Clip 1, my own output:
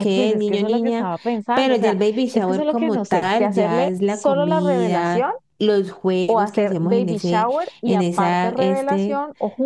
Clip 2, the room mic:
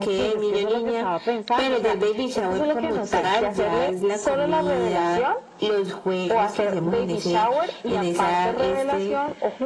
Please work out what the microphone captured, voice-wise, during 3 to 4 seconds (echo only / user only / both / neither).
echo only